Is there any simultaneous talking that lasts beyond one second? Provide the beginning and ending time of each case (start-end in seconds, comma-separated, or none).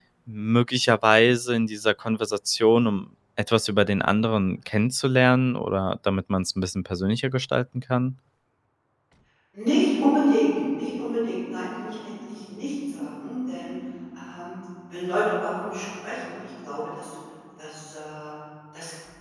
none